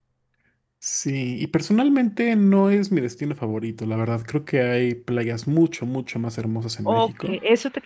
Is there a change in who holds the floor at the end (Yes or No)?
Yes